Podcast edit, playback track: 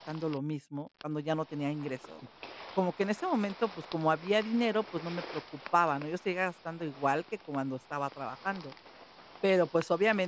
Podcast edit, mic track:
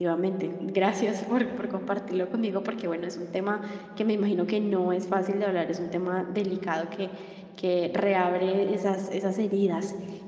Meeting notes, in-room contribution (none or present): present